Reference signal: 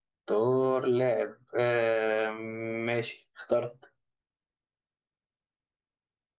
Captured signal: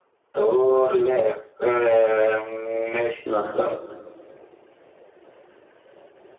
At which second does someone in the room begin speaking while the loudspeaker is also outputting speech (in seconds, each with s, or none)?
3.2 s